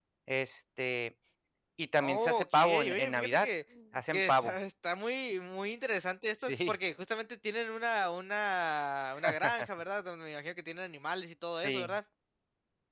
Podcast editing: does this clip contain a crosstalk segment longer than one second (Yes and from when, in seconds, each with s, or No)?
Yes, from 2.0 s